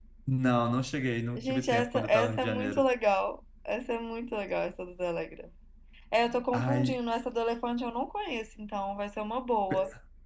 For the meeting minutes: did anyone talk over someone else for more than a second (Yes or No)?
Yes